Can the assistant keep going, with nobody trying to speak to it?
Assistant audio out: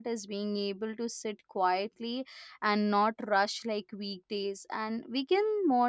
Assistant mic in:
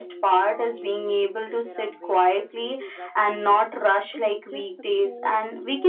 No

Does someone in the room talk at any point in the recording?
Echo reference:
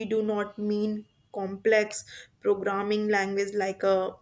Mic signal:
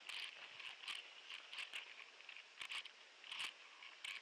No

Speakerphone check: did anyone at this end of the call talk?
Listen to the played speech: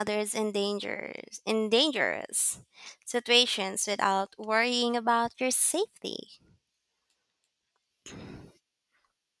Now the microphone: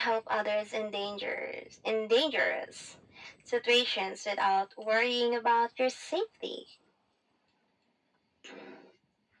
No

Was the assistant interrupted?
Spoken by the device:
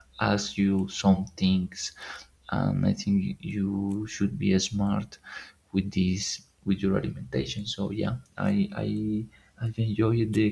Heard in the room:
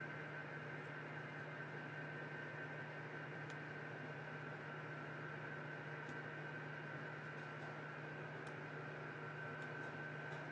No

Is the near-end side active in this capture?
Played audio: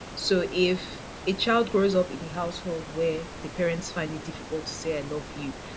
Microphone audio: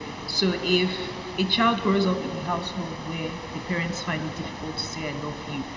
No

